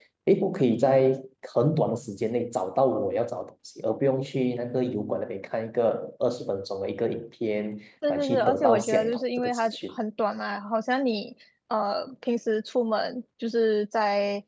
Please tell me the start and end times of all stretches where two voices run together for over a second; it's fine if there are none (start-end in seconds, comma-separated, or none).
8.1-9.8